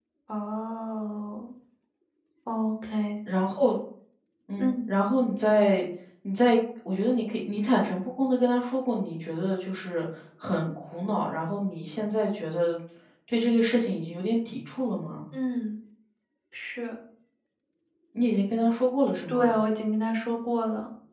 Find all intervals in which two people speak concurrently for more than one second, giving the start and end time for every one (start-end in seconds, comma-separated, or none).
none